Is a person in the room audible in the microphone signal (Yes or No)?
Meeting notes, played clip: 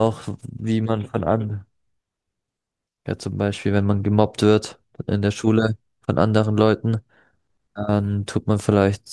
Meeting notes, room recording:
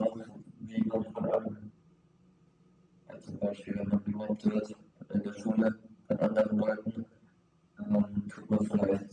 No